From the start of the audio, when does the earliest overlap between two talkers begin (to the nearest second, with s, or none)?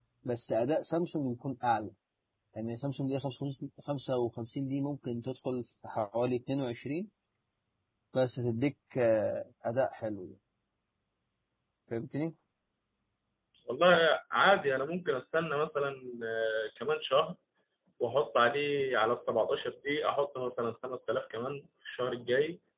none